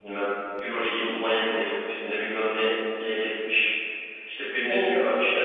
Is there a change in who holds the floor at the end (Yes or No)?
No